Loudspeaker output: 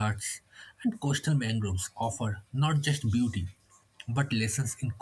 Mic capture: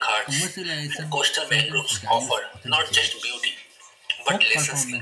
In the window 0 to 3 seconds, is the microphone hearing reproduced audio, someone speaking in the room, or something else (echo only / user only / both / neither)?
both